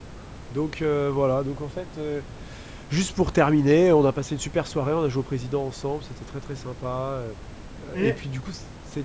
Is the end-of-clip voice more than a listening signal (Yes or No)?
No